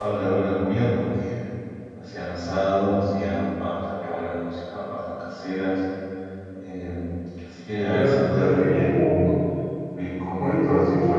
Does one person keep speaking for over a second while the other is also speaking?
Yes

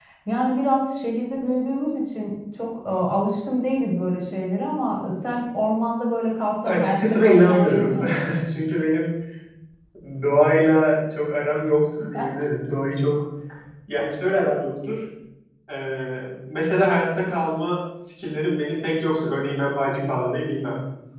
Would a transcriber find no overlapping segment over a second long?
No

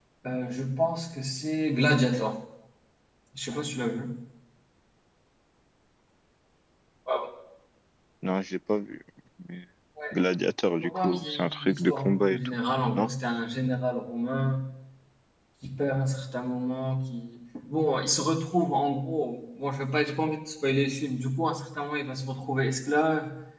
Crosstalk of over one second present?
Yes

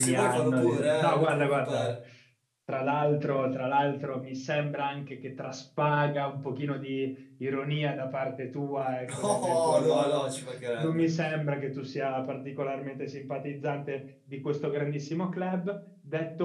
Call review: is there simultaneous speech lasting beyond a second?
Yes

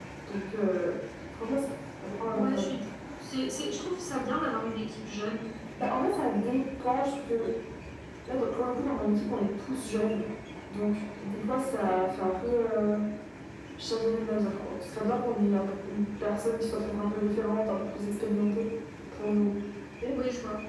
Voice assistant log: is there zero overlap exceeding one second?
Yes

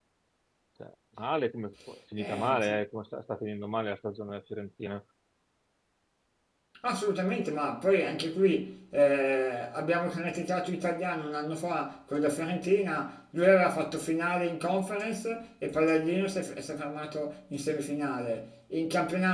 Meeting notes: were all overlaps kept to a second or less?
Yes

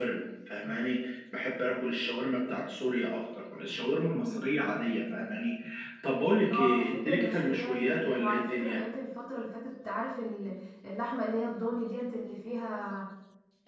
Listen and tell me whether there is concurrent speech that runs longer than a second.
Yes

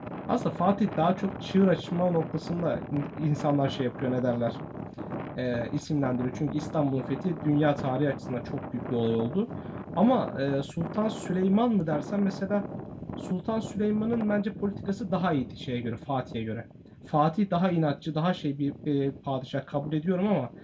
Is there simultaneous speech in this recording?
No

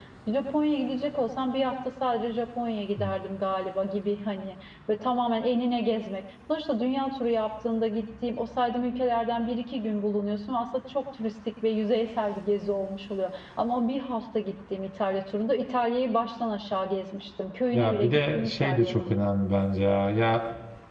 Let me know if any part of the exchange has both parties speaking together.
Yes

